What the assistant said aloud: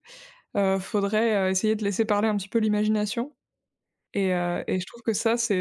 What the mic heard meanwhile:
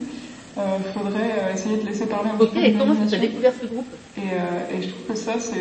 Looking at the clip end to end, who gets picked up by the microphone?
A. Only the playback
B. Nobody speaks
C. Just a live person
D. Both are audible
D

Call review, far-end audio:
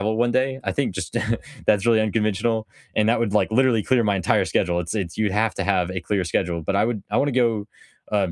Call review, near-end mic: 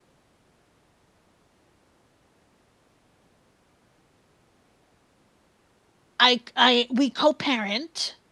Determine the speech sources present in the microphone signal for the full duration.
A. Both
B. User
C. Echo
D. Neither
B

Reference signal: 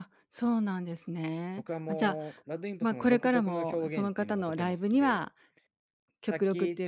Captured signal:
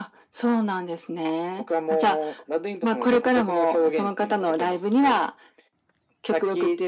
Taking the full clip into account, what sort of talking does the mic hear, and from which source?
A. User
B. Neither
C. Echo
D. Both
C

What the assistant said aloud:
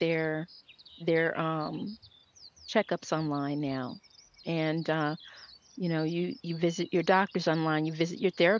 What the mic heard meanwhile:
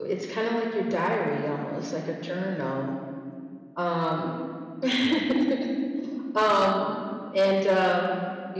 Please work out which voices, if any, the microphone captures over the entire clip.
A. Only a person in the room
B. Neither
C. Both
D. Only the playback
A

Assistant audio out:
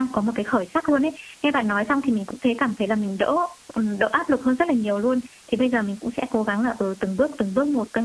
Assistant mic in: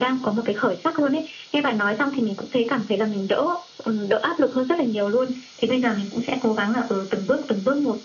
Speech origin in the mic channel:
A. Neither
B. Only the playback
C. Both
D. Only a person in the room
B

